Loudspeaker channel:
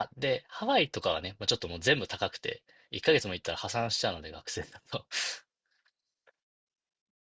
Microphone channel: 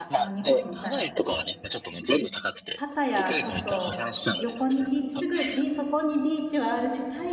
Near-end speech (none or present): present